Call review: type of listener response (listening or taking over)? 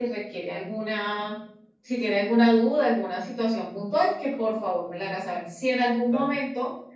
listening